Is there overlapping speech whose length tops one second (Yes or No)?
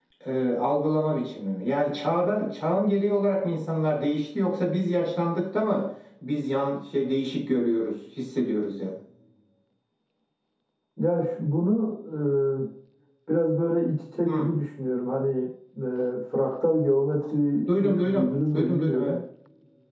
Yes